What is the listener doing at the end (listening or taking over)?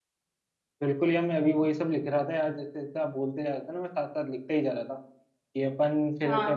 listening